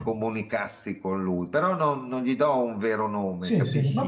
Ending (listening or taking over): taking over